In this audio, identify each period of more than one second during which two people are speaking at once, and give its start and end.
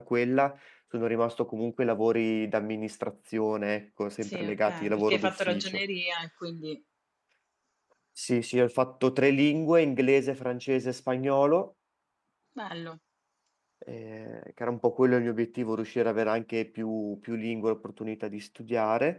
4.2-5.8

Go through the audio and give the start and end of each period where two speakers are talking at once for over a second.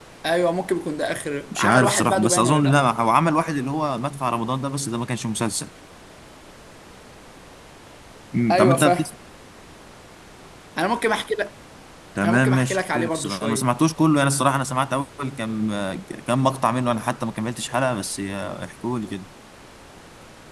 1.5-2.8, 12.2-13.7

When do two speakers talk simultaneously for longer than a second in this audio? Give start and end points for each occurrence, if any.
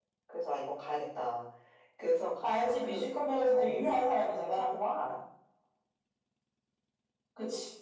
2.4-4.7

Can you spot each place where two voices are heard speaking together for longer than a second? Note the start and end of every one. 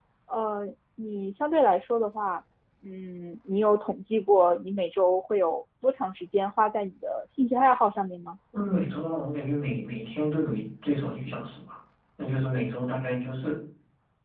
none

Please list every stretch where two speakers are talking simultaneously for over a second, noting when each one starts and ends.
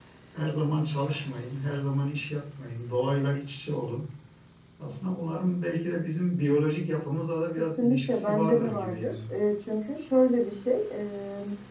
7.8-9.2

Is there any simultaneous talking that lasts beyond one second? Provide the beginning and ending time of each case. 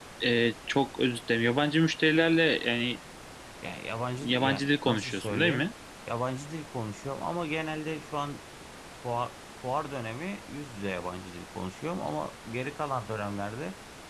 4.2-5.7

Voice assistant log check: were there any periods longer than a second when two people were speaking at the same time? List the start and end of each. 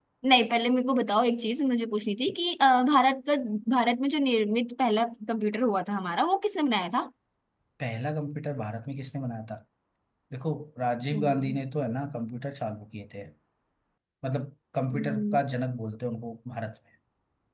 none

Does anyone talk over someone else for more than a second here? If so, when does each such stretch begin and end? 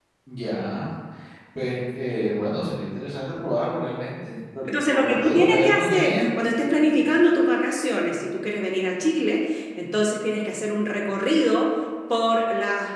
4.7-6.3

